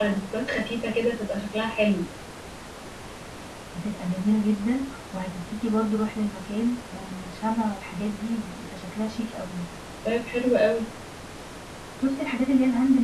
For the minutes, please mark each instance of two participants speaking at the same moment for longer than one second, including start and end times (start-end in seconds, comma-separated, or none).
none